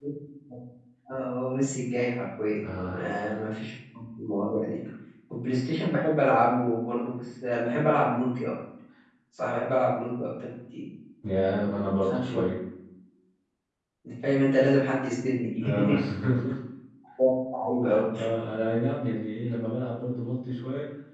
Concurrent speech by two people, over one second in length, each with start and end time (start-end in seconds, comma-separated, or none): none